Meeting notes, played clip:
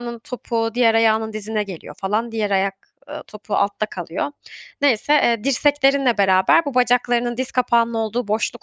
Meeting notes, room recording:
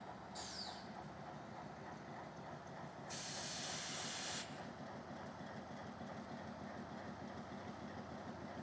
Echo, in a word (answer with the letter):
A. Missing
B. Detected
A